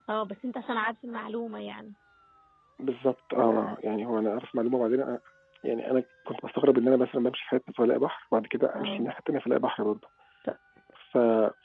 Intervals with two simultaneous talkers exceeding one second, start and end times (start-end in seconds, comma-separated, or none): none